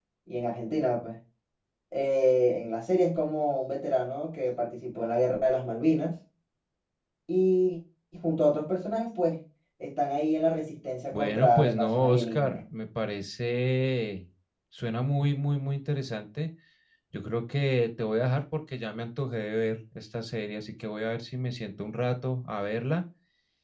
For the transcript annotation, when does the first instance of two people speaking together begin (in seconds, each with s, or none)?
11.1 s